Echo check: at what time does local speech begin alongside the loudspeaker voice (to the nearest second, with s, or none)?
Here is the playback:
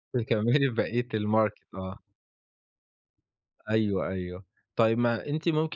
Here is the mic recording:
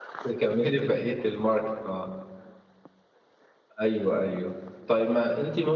none